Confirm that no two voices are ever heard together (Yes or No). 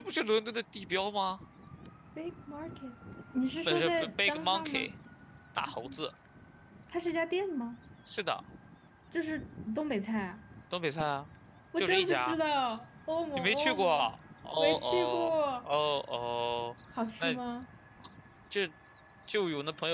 No